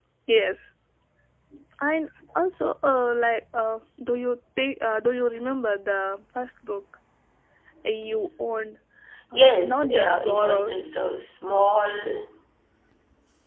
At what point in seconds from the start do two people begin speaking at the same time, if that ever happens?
9.3 s

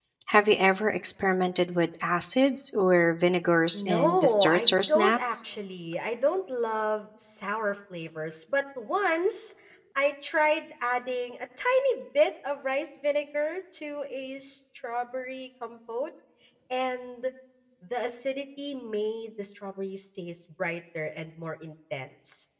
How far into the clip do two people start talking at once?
3.7 s

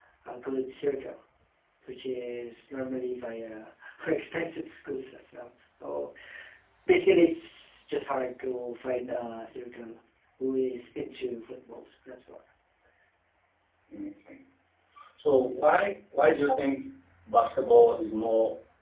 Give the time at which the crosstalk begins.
none

